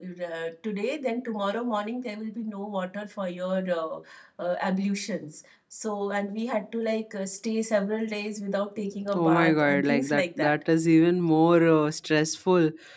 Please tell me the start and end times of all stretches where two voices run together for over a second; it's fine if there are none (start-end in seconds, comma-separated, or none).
9.1-10.6